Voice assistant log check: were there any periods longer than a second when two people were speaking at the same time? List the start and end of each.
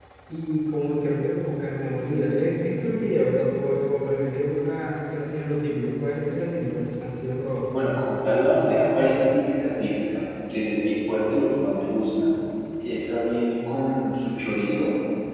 none

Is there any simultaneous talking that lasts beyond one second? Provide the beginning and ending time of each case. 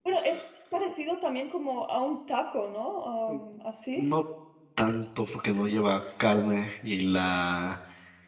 none

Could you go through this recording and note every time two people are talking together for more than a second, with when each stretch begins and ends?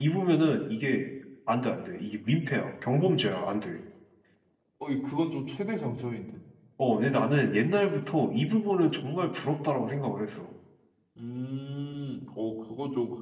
none

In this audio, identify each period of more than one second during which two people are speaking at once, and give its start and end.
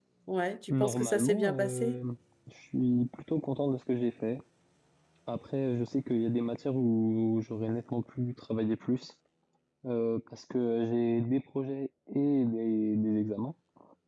0.7-2.0

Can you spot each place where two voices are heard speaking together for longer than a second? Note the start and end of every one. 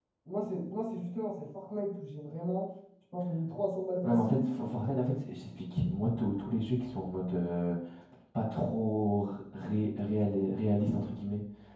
none

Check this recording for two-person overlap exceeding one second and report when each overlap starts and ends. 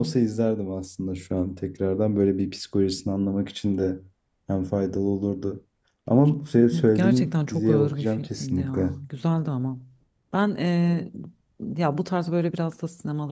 6.8-8.9

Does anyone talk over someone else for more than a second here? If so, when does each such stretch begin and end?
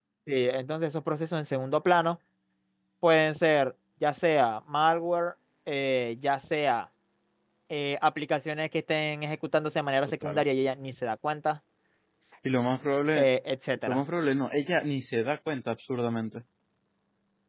none

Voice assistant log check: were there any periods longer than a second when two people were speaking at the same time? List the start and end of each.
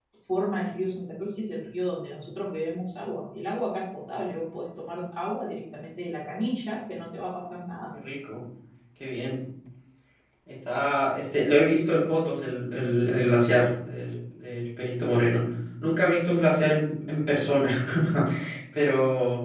none

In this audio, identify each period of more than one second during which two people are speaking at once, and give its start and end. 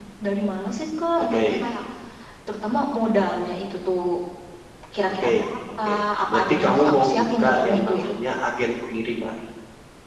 6.3-8.1

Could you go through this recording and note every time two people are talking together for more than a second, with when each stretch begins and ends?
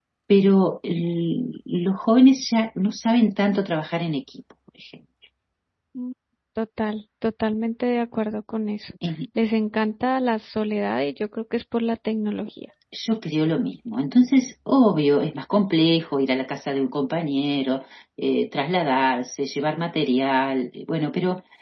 none

